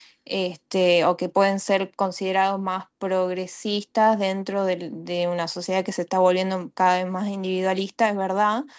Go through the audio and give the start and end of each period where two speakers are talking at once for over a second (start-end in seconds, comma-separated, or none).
none